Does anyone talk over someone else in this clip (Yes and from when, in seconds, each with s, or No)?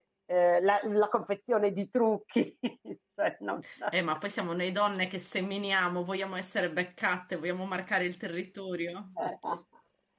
No